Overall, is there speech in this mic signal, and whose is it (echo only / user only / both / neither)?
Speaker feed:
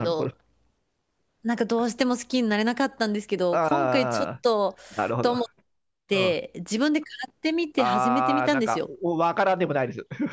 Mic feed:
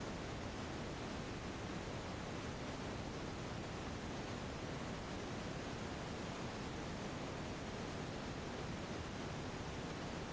neither